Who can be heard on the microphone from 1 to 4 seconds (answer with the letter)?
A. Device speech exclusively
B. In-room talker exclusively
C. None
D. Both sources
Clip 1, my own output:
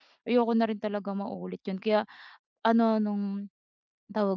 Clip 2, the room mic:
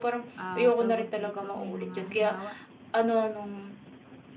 D